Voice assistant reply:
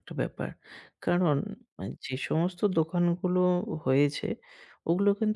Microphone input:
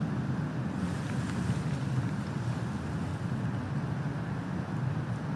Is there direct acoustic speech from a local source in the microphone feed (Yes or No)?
No